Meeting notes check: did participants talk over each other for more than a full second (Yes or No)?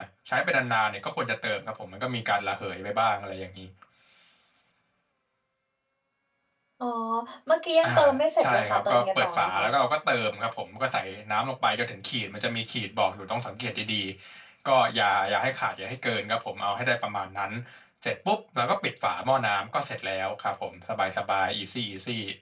Yes